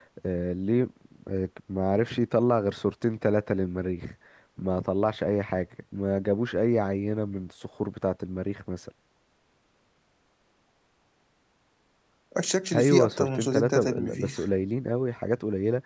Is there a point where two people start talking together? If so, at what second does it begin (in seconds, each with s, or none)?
12.8 s